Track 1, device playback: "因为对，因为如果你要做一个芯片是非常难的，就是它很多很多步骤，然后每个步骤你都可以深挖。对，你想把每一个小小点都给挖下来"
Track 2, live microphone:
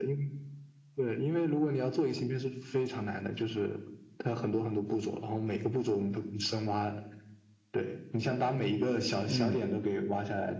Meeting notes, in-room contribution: present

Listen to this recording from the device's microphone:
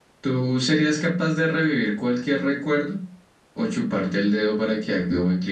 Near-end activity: present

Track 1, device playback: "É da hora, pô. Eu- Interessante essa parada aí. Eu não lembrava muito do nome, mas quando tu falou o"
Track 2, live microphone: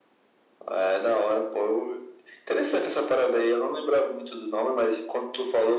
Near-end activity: none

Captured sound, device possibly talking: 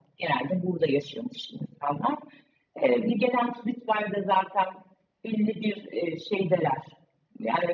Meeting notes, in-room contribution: none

